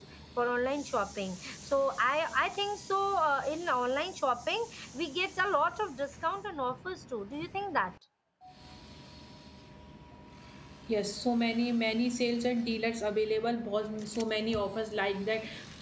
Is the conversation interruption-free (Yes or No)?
Yes